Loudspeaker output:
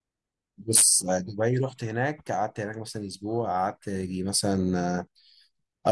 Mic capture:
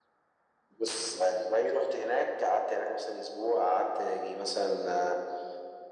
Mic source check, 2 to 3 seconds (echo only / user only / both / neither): echo only